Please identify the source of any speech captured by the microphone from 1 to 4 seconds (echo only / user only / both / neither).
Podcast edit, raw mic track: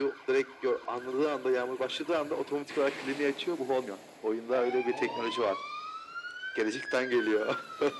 echo only